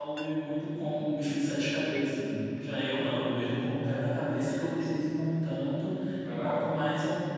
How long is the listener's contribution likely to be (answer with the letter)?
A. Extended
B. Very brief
B